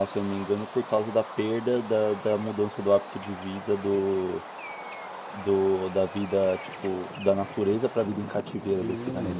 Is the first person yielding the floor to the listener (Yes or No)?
Yes